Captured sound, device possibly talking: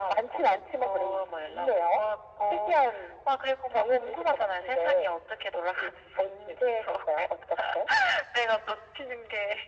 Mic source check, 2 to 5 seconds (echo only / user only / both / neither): echo only